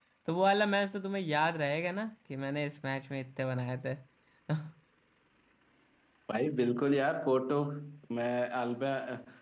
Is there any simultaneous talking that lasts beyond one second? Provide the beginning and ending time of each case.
none

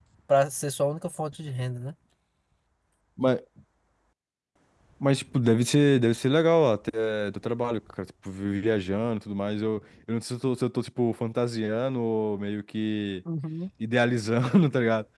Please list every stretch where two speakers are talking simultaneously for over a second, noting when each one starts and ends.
none

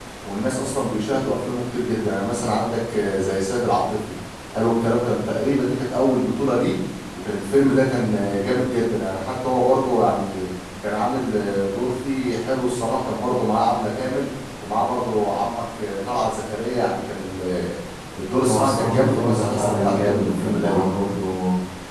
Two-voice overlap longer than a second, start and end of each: 18.4-20.9

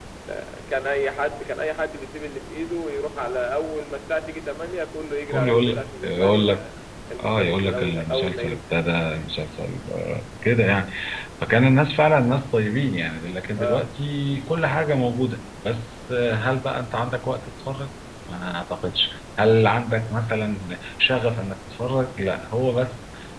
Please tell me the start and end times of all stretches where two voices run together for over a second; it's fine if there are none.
5.3-6.7, 7.2-8.6

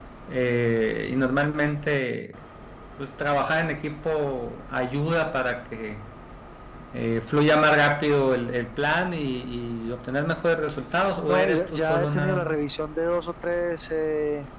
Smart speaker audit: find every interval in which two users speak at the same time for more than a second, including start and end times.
11.3-12.6

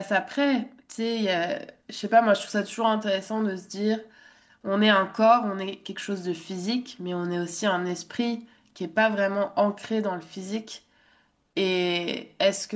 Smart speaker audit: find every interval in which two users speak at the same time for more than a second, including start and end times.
none

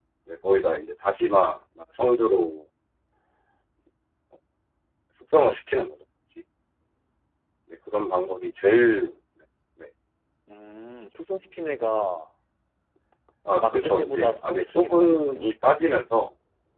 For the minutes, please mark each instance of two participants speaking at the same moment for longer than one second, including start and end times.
13.6-15.5

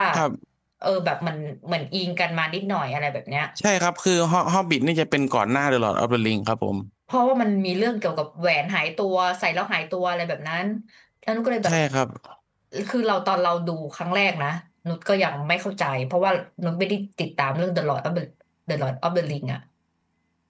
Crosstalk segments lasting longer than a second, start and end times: none

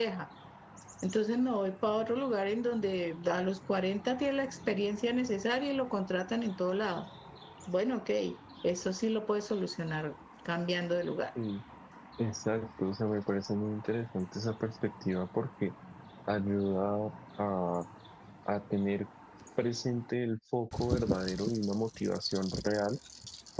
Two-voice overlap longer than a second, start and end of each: none

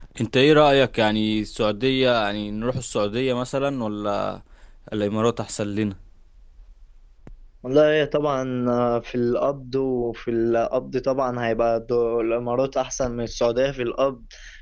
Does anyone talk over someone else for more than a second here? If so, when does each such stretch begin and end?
none

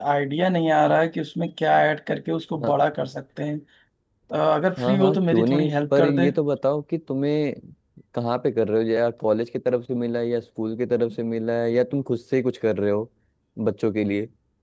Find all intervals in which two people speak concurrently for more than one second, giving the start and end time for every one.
4.8-6.3

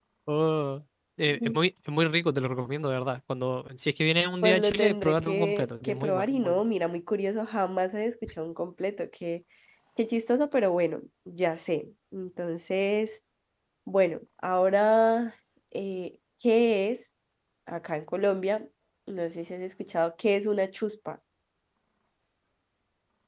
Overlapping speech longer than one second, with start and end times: 4.4-6.6

